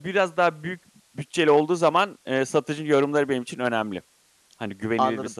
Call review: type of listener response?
taking over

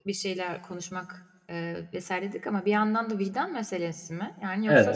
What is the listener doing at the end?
taking over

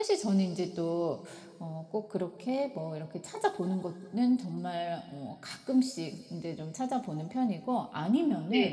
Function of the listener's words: listening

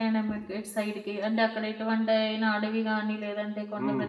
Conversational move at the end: taking over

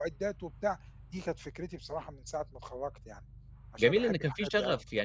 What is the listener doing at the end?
taking over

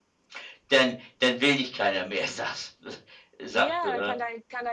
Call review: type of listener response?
taking over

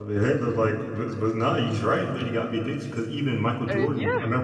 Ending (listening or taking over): listening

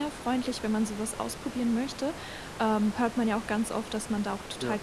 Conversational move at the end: listening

